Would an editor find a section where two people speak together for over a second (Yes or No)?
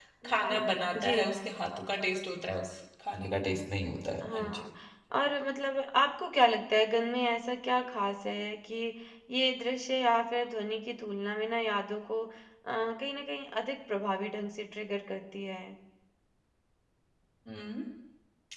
No